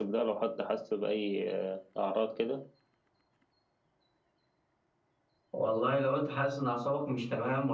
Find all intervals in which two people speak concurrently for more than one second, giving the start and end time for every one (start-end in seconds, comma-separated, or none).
none